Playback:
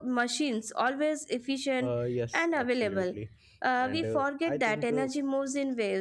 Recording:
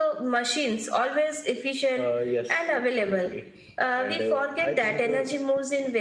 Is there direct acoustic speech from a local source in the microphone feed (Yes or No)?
No